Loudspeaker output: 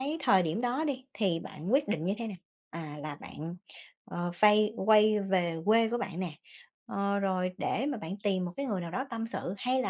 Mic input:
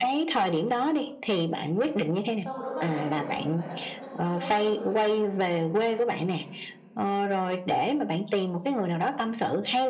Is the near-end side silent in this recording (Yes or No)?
No